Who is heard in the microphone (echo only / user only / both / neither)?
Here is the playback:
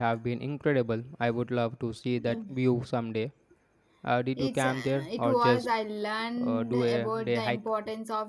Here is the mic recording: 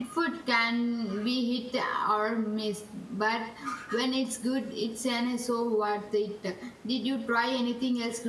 user only